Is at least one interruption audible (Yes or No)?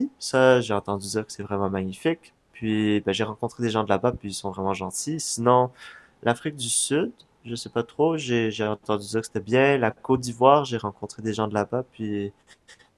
No